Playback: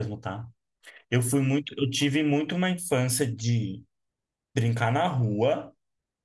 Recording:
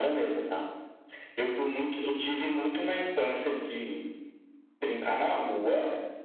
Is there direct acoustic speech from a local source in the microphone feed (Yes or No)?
No